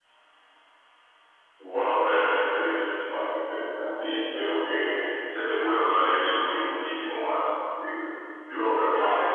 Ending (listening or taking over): listening